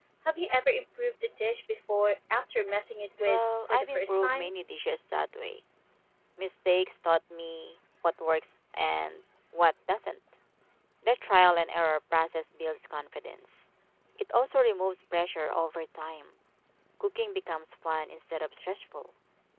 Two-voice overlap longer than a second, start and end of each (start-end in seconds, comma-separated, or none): 3.3-4.5